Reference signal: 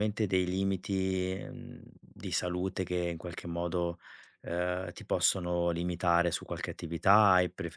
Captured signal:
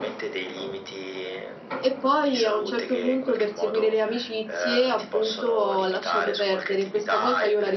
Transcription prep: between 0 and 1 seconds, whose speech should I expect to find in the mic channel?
echo only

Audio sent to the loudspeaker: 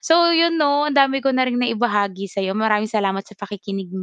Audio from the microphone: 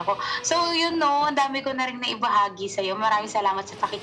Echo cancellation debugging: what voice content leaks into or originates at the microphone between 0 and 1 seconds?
echo only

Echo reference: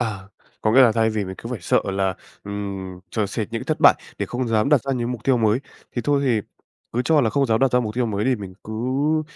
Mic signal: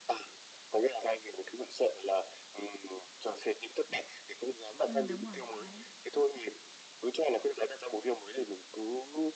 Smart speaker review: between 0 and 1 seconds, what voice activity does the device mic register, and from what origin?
echo only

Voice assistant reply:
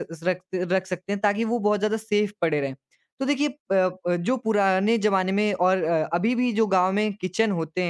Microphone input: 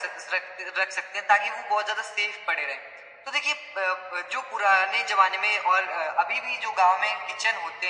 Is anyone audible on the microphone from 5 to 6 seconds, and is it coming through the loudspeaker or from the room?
echo only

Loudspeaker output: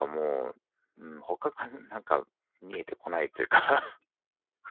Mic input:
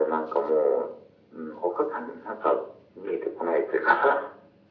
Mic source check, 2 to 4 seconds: echo only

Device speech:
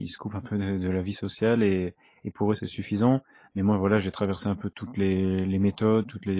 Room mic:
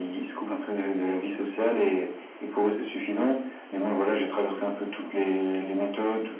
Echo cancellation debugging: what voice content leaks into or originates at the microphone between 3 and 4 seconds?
echo only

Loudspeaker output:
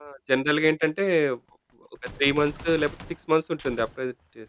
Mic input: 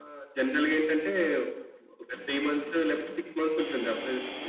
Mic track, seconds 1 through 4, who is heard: echo only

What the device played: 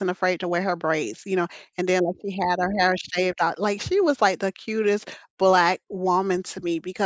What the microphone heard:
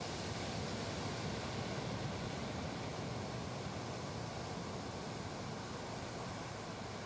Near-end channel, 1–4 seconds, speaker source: neither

